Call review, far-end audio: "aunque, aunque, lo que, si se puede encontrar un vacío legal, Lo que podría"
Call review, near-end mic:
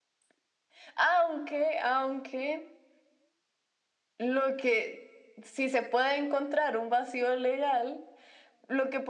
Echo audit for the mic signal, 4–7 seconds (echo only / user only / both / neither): echo only